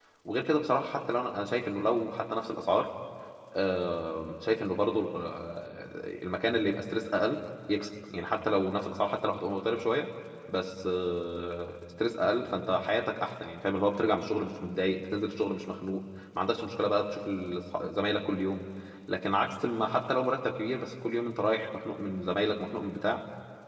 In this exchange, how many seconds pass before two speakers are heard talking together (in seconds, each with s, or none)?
none